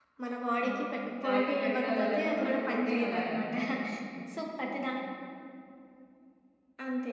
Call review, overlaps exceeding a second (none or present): present